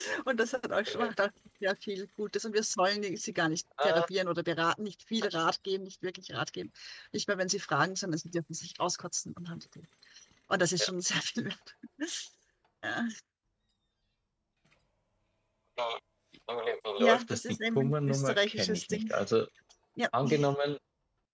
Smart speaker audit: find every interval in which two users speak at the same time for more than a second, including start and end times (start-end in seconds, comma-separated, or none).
17.0-19.1